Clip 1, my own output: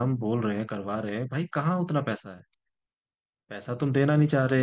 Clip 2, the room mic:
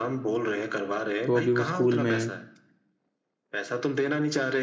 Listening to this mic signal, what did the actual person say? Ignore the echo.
तो अभी वो स्कूल में है

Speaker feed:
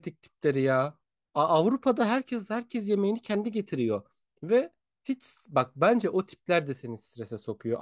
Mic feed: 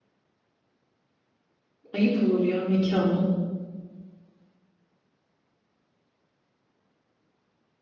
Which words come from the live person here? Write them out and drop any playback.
Ayıp olur ya mekanla.

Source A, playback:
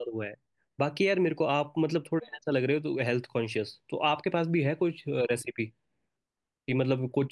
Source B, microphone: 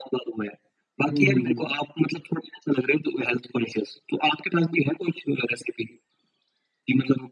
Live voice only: हम्म हम्म हम्म

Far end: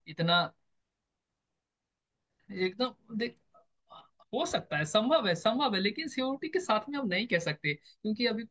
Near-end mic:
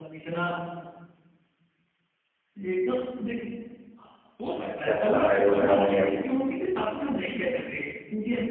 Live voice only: कैसा लड़ाई वगैरह हो गया था

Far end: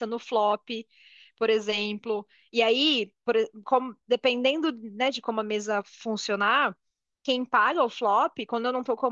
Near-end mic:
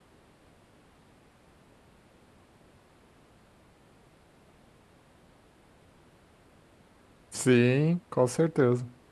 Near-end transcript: Sim, com certeza.

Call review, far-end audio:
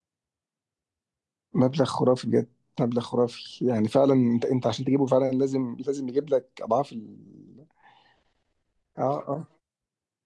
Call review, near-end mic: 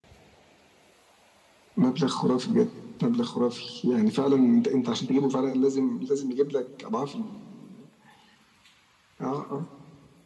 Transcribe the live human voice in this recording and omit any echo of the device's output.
none

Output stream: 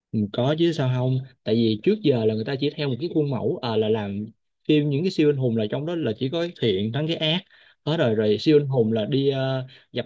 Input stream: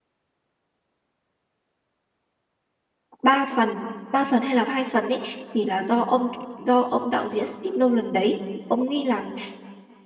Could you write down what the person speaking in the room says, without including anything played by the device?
ba phần ba phần hay là hai phần đấy thì là do ông do ông đạo diễn Steve Nolan đấy ông ấy làm

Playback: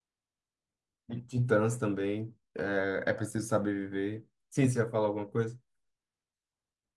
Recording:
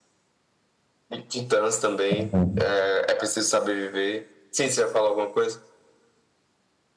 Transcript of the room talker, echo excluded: aham.

